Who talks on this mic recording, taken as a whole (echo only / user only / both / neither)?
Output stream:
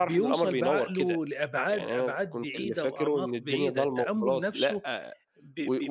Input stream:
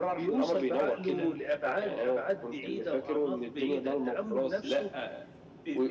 both